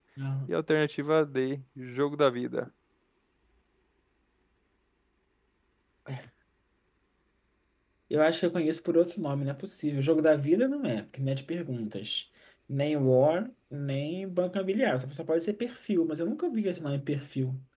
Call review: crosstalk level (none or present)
none